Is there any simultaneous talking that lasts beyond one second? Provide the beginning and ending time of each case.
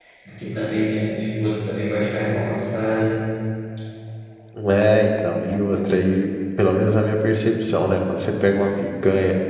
none

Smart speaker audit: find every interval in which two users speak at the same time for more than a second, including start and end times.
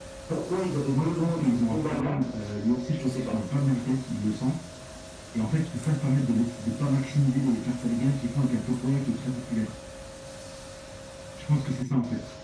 0.9-2.2

